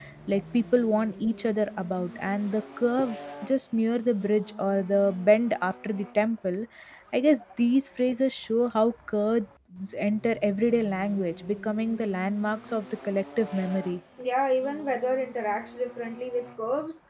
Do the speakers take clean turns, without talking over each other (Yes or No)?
Yes